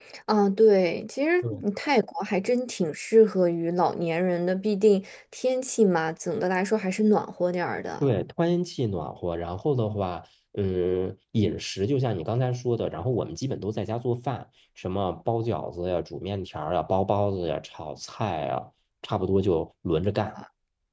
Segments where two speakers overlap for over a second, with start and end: none

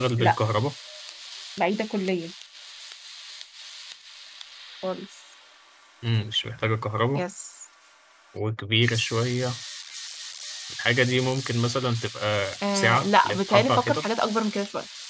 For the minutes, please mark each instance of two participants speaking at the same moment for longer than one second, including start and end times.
12.7-14.0

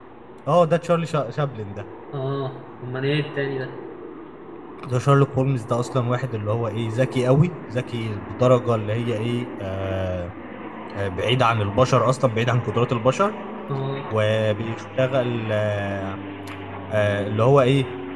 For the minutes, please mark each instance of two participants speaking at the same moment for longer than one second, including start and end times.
none

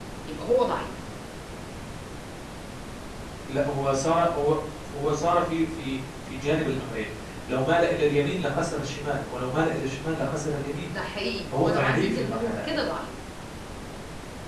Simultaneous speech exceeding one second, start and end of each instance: 11.6-12.8

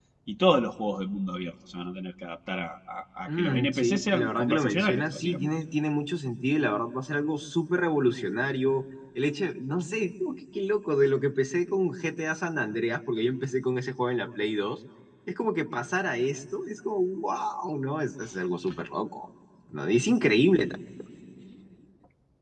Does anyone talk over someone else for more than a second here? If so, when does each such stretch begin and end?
3.3-5.5

